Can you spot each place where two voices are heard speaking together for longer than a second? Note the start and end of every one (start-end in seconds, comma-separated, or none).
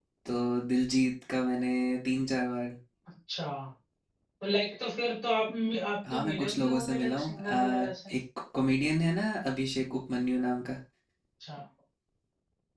6.1-7.9